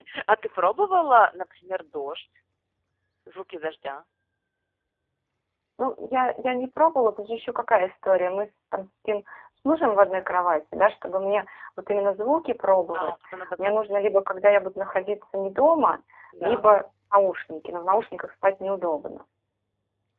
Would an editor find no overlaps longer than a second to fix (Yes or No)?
Yes